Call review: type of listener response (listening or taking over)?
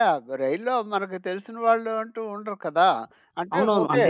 taking over